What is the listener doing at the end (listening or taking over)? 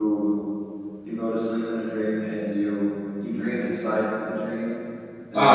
taking over